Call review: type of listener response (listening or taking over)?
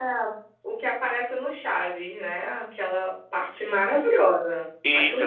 taking over